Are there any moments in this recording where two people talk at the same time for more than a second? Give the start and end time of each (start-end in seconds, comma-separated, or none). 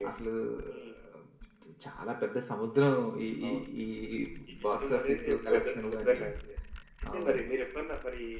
4.8-6.3